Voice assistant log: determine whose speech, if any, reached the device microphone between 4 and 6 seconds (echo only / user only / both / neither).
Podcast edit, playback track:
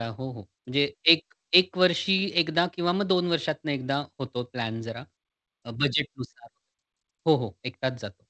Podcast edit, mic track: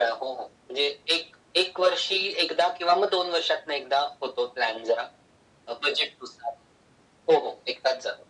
echo only